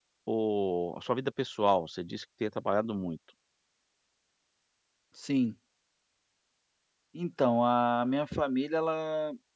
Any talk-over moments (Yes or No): No